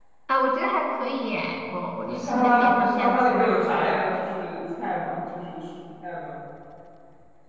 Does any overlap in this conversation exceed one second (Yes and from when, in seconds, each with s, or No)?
Yes, from 2.3 s